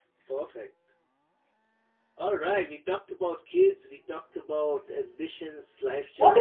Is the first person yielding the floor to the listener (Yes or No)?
Yes